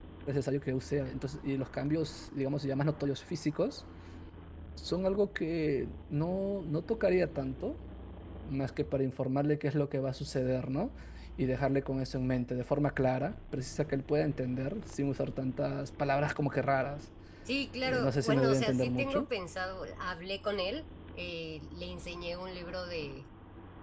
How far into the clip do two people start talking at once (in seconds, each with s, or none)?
17.8 s